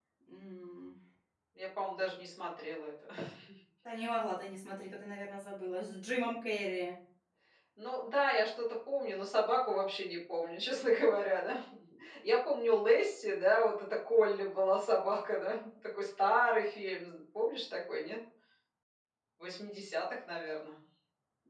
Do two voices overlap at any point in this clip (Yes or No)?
No